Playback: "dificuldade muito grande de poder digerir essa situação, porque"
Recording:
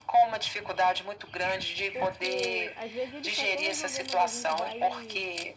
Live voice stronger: No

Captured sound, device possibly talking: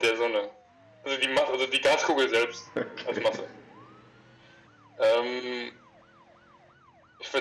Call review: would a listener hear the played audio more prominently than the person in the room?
Yes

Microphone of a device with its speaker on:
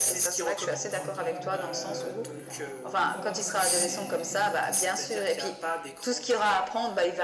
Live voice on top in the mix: No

